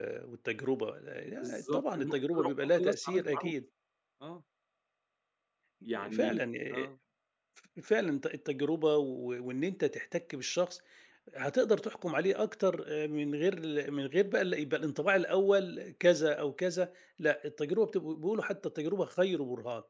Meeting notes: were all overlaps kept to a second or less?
No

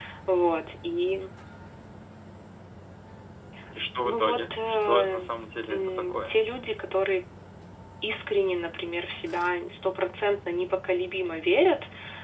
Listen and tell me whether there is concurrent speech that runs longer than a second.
Yes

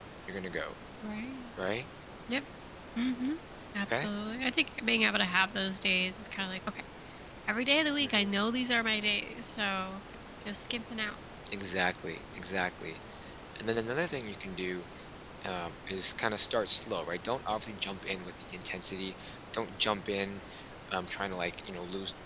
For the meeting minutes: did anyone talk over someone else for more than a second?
No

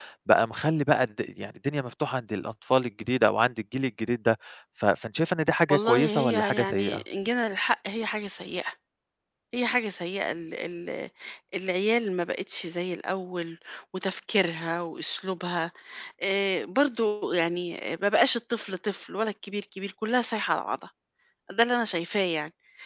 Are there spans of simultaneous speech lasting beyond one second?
Yes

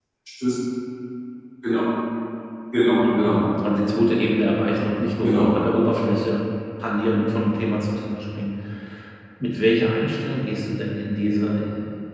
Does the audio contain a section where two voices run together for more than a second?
No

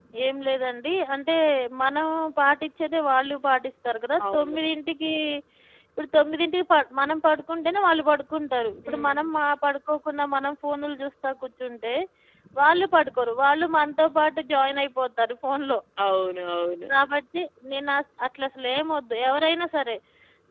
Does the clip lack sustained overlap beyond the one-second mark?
Yes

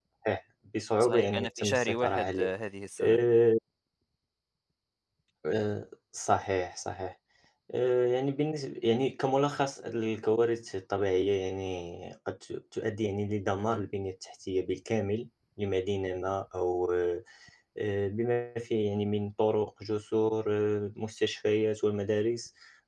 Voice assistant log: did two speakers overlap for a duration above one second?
Yes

